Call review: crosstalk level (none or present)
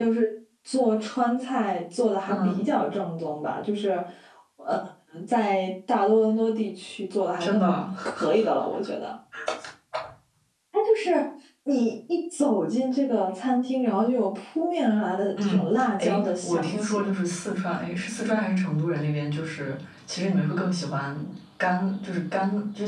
present